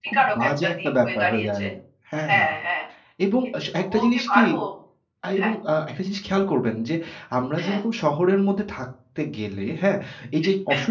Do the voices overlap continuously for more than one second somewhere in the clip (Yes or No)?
Yes